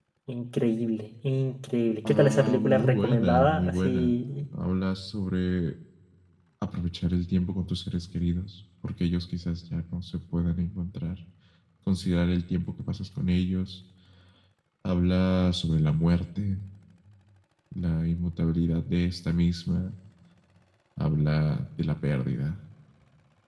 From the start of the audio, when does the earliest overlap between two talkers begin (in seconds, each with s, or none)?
2.0 s